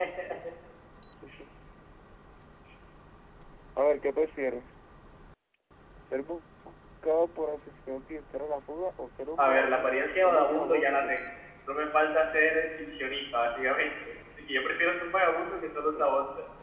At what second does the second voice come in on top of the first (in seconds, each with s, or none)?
9.4 s